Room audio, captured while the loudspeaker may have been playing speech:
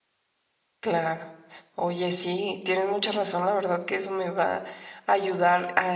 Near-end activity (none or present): present